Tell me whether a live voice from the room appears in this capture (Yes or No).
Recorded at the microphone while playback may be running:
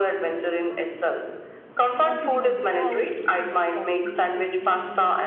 Yes